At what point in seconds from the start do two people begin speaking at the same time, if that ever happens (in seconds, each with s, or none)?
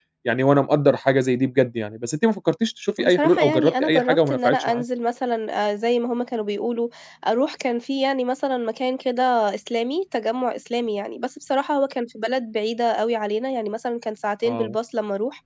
3.0 s